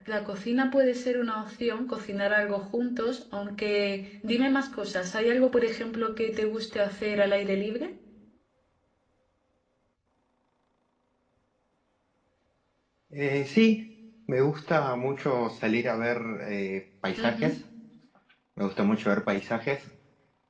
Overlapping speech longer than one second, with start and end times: none

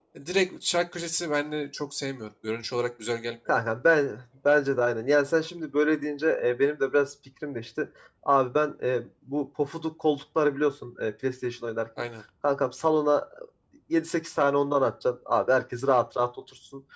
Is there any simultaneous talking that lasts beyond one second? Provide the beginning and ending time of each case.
none

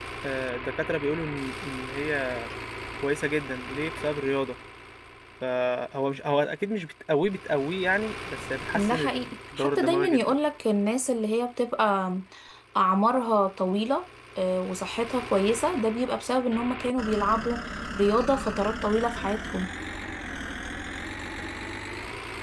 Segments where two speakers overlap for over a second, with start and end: 8.7-10.2

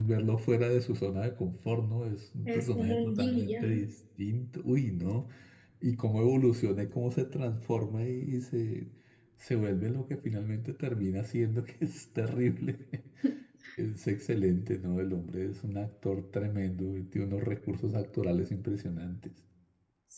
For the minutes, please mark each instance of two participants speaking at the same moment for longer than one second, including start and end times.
2.5-3.8

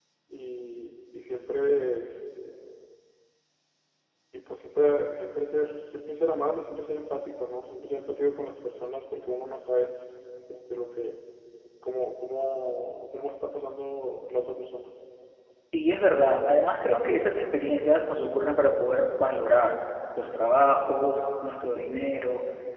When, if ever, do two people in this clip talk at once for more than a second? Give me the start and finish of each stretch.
none

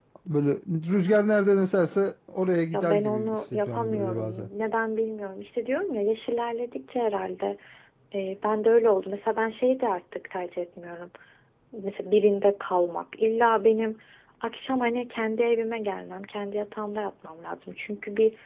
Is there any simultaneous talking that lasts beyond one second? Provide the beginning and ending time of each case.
2.7-4.5

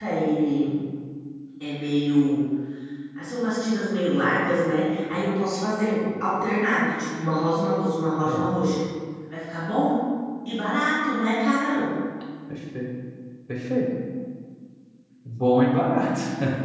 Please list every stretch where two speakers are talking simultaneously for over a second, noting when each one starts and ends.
none

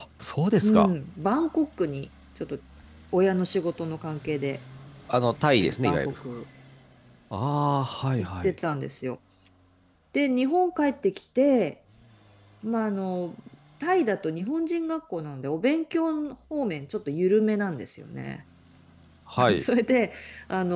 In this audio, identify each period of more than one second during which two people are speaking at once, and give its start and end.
none

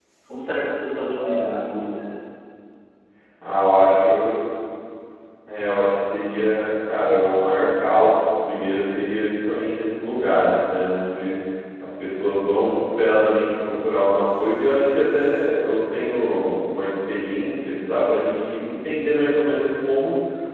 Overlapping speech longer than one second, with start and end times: none

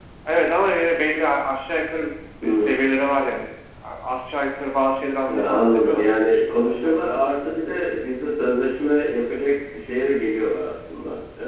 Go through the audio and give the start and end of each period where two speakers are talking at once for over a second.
5.3-7.1

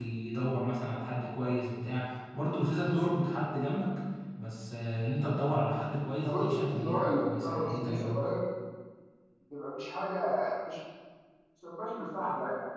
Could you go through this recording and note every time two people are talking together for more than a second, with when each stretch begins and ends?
6.2-8.3

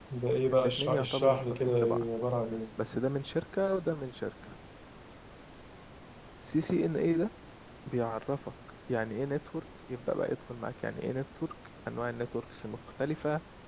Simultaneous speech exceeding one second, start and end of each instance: 0.5-2.1

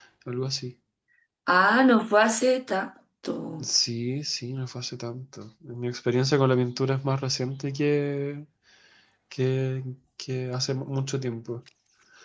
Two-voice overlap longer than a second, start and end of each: none

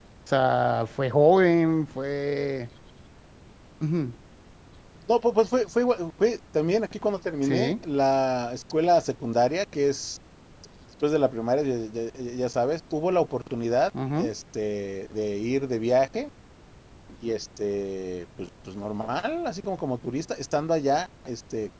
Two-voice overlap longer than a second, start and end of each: none

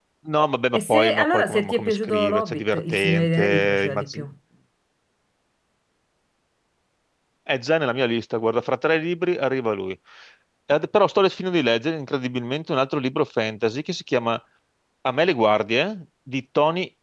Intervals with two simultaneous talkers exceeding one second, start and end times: 0.8-4.2

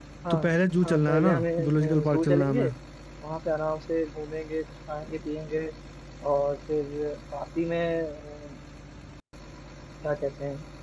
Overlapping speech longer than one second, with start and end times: 0.8-2.6

